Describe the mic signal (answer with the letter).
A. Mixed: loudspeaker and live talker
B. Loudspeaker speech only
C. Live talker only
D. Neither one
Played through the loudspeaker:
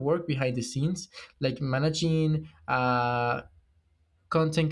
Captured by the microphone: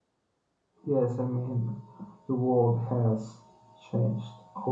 C